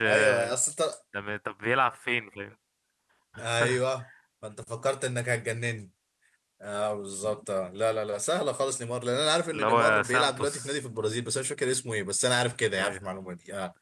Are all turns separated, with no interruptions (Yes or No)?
No